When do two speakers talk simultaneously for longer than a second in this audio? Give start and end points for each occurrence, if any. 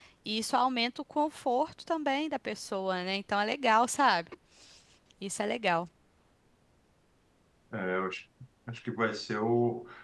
none

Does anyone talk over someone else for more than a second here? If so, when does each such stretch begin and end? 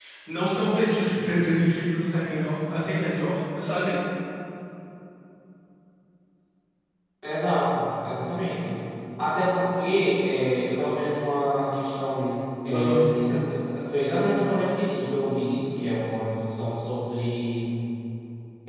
none

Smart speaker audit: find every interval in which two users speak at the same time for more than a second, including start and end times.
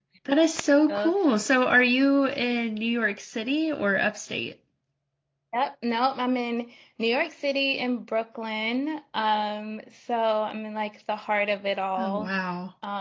none

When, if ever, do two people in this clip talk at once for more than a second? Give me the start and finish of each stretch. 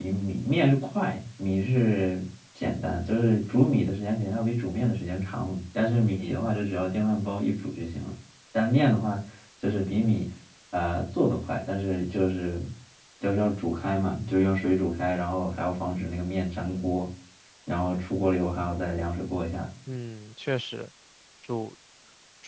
none

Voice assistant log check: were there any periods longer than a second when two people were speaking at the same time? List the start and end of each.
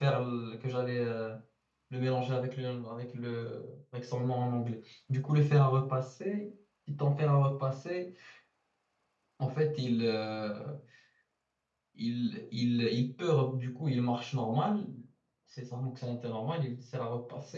none

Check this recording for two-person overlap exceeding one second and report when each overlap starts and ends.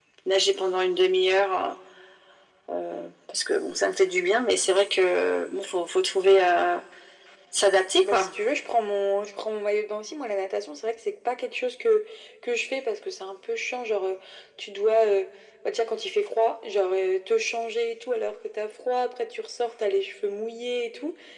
none

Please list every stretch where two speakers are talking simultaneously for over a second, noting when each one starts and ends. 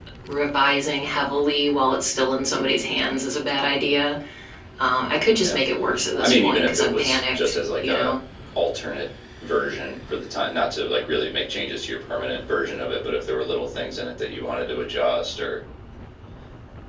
6.2-8.2

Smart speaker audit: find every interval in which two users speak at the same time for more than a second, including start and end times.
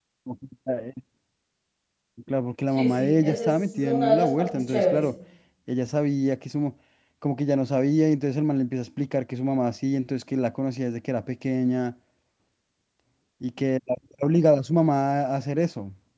2.7-5.0

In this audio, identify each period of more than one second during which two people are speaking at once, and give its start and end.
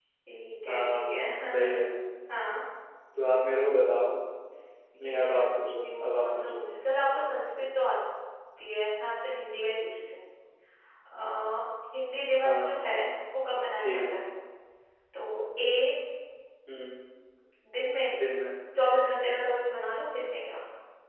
5.0-6.6

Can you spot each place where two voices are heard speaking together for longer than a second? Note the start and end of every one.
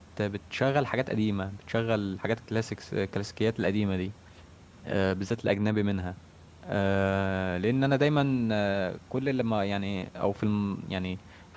none

